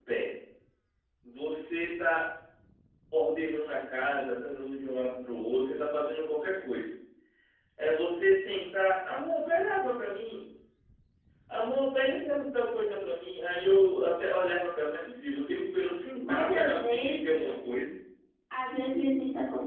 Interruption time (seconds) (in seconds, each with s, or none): 16.2 s